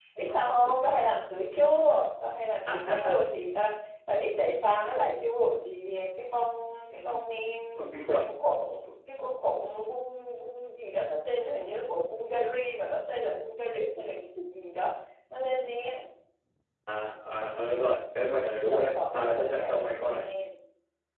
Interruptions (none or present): present